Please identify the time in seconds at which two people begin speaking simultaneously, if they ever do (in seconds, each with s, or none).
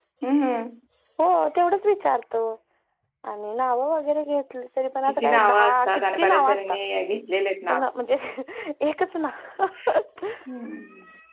5.0 s